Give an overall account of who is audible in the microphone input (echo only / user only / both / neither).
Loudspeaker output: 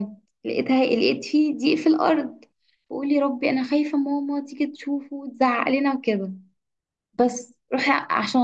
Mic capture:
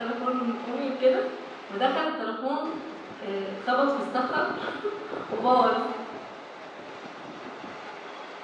user only